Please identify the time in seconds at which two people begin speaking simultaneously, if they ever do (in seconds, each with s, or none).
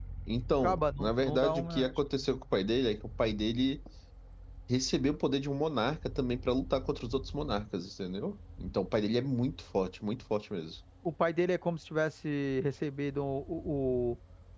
0.6 s